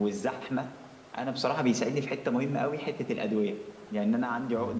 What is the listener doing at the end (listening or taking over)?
listening